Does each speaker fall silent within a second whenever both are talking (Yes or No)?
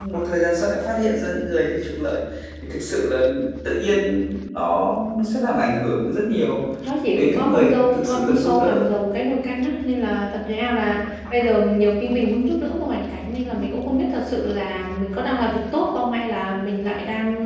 No